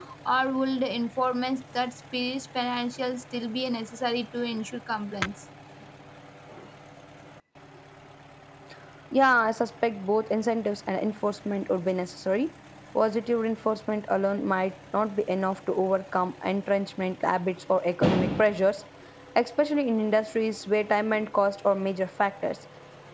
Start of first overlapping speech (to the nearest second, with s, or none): none